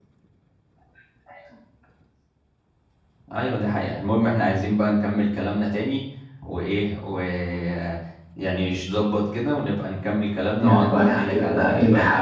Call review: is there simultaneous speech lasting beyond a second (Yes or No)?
Yes